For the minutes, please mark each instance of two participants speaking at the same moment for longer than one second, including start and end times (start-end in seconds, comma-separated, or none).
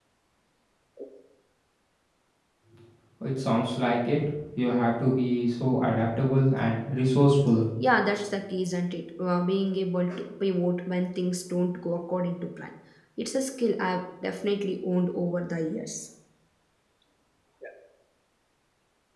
none